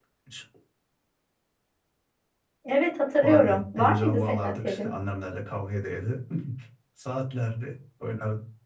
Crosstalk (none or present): present